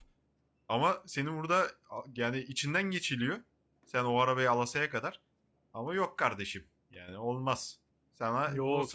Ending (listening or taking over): taking over